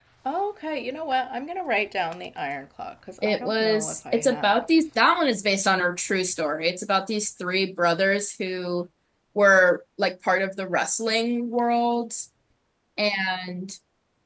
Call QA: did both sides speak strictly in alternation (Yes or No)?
No